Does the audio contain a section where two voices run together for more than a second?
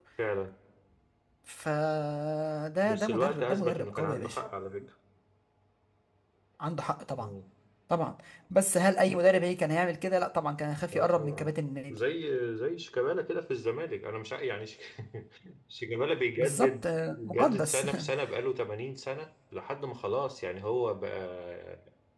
Yes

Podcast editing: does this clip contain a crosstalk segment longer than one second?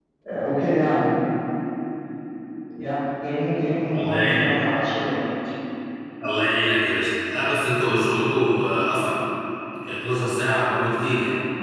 No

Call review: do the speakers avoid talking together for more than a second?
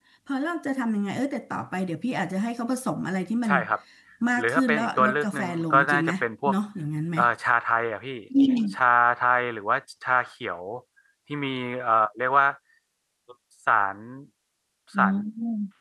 No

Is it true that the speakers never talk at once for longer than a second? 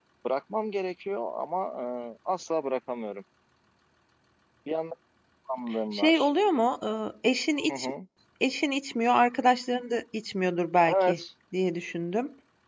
Yes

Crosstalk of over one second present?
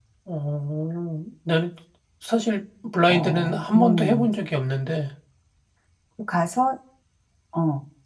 Yes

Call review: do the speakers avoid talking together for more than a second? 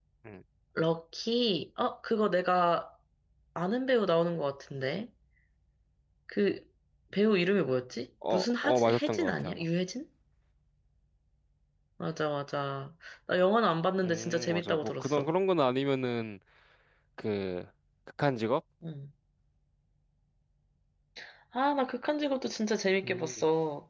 No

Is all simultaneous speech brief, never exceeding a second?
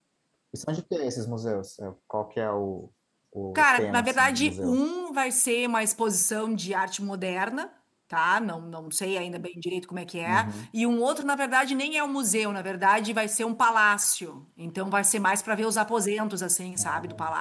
No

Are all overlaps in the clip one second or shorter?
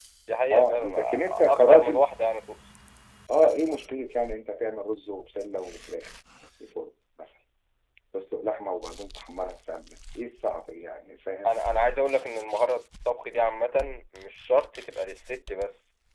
No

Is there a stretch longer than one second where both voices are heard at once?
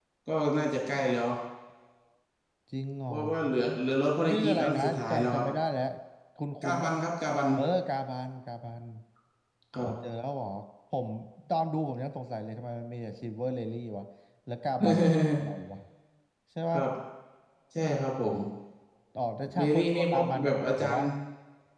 Yes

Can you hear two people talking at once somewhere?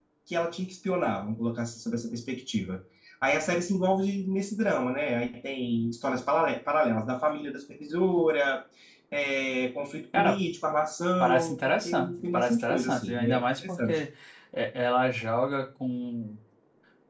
Yes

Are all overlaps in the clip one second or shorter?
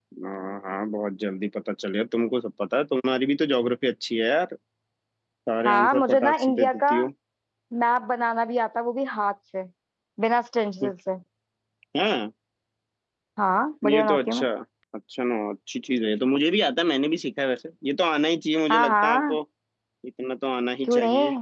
No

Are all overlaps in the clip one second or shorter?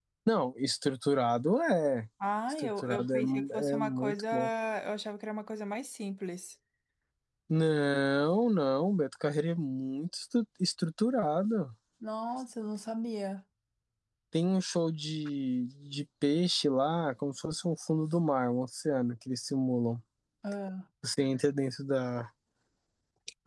No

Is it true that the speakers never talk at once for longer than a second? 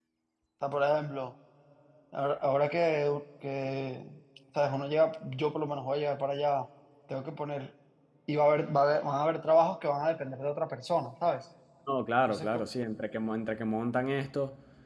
Yes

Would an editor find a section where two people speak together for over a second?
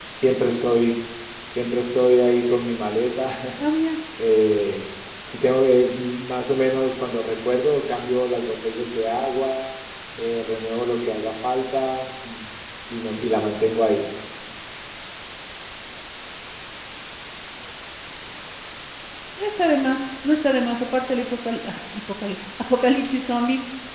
No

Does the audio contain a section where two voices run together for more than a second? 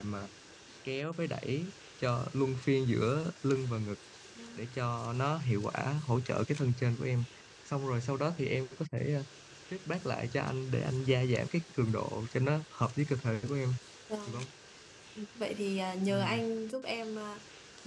No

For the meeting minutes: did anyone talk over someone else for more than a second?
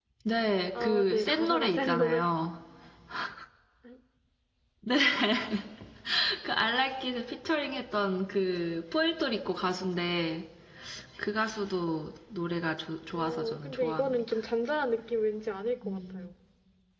Yes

